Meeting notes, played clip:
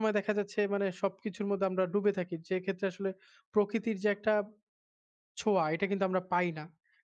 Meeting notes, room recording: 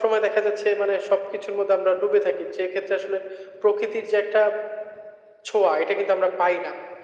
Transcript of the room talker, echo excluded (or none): none